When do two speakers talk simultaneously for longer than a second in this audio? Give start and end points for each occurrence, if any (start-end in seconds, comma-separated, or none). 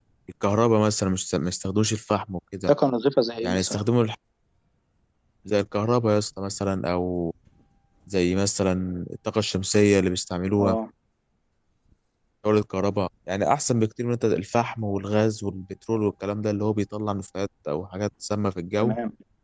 none